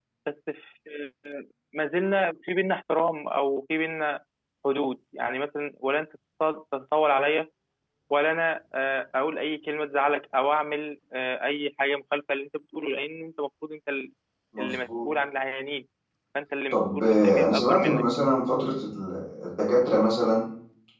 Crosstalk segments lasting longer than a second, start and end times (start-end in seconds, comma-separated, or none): 16.7-18.0